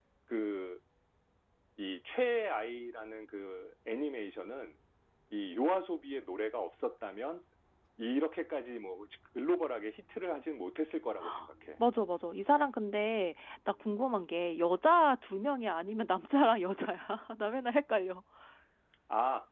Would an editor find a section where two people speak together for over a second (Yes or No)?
No